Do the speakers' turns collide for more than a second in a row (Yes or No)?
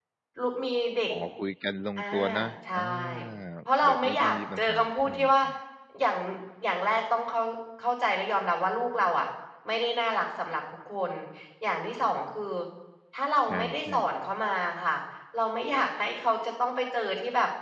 Yes